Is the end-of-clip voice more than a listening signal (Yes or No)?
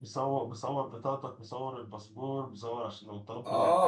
Yes